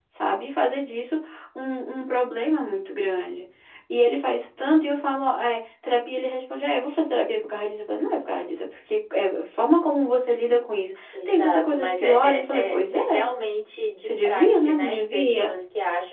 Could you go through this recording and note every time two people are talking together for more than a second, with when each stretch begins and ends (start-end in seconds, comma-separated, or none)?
11.2-13.0, 14.0-15.5